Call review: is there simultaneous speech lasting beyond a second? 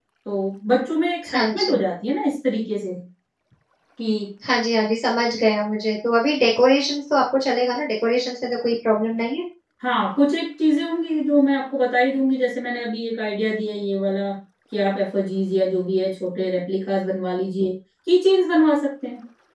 No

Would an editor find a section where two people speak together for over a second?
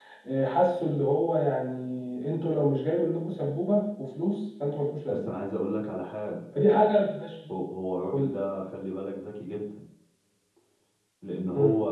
No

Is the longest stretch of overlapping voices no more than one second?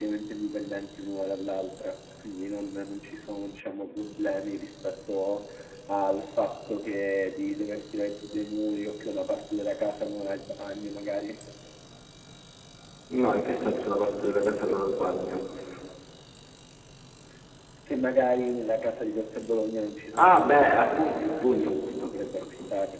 No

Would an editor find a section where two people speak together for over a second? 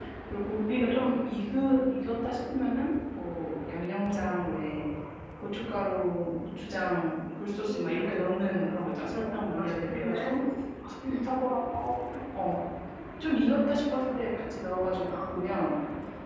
Yes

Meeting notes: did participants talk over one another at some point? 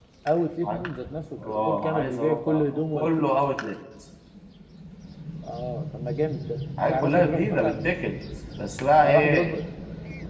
Yes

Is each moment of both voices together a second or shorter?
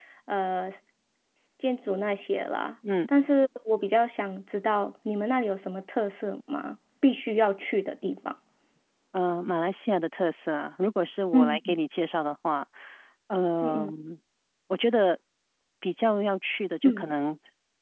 Yes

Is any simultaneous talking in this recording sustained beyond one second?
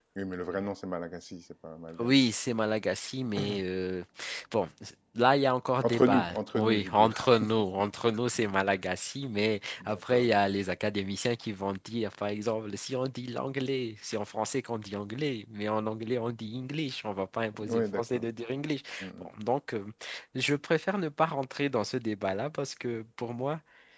Yes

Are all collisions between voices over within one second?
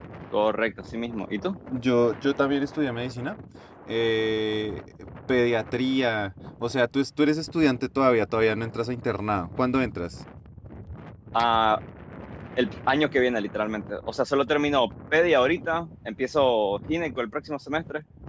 Yes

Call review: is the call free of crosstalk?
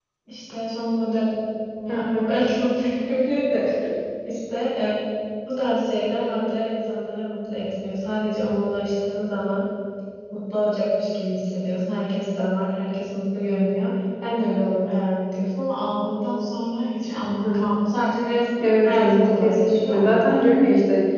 No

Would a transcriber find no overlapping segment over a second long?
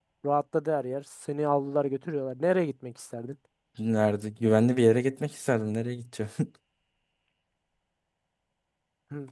Yes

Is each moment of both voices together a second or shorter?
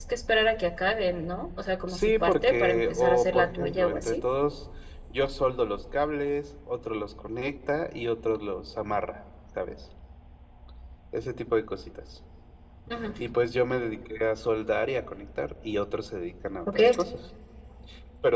No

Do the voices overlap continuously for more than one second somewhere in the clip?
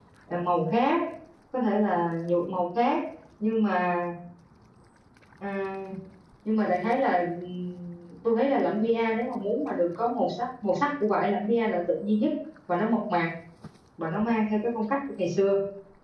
No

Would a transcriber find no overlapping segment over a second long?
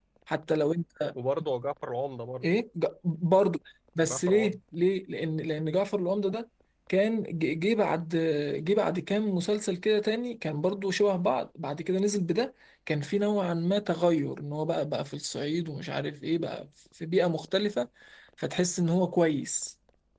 Yes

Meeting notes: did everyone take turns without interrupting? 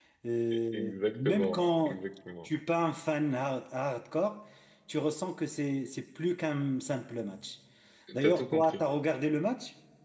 No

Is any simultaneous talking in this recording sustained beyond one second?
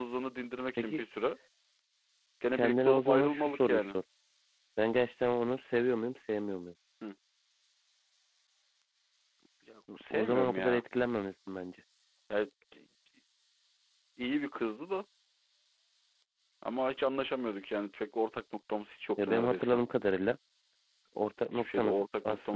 Yes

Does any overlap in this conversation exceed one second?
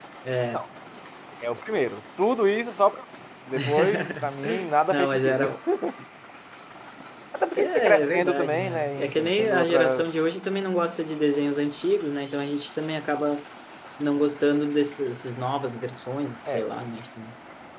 Yes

